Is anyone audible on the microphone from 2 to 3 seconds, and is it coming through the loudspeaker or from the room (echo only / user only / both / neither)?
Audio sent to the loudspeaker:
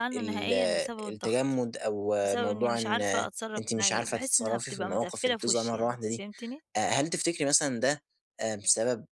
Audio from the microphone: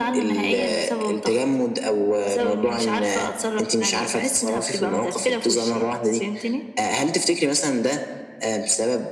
echo only